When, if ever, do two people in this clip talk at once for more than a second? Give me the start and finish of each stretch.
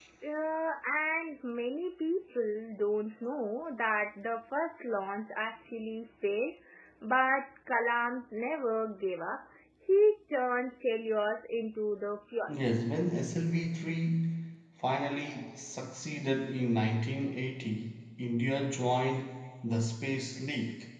none

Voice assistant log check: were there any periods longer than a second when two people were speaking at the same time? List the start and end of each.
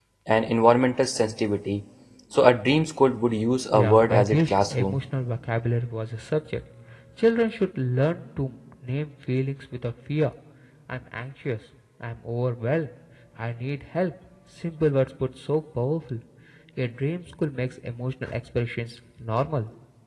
3.7-5.0

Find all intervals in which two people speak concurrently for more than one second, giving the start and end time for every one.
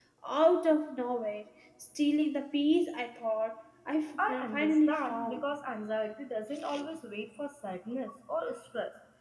4.2-5.4

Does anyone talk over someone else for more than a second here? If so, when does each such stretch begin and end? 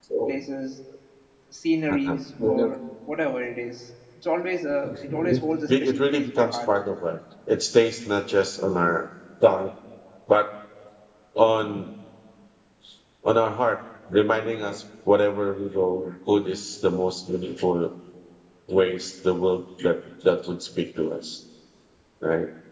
4.8-6.8

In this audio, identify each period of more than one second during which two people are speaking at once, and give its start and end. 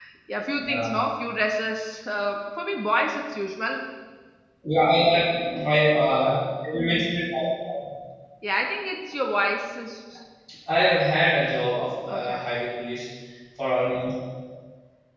none

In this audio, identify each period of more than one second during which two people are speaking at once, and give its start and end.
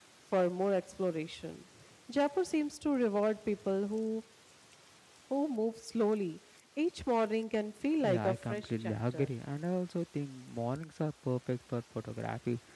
8.0-9.3

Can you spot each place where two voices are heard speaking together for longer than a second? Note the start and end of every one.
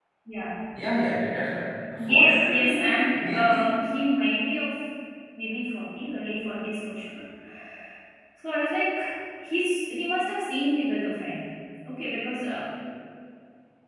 2.1-4.0

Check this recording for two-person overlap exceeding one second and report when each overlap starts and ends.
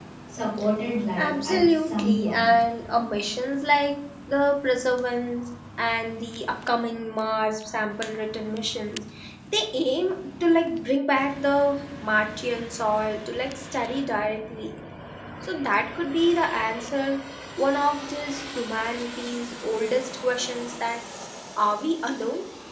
1.2-2.5

